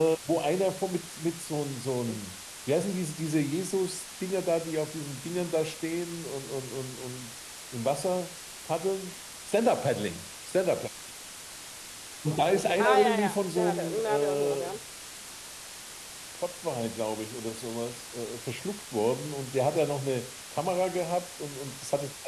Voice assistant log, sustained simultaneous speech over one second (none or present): present